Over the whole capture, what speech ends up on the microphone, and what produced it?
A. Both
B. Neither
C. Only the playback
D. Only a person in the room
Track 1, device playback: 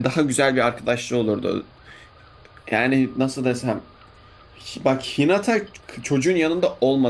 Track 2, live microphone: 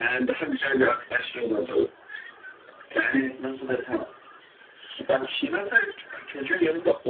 C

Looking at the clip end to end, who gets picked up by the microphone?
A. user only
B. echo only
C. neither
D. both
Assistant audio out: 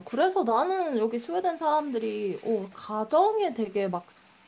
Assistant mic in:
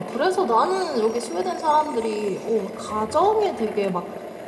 B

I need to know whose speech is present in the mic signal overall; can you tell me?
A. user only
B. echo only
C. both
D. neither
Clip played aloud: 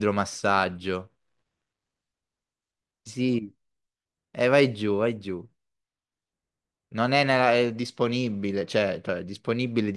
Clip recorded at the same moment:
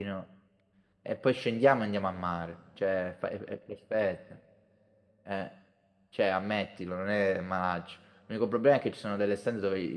A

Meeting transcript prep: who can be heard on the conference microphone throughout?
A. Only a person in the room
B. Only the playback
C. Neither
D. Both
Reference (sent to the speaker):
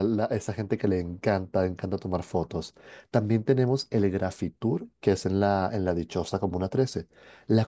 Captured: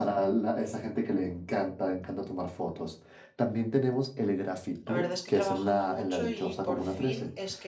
D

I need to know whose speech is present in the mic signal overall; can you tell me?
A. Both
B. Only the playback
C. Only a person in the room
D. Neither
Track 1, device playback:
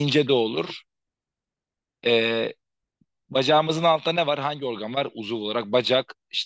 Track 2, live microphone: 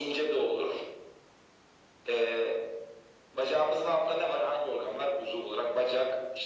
B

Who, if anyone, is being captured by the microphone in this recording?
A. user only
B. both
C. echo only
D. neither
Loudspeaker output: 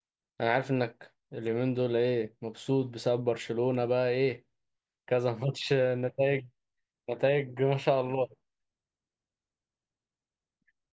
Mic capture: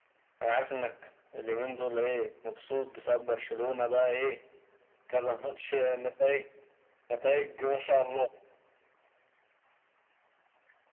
C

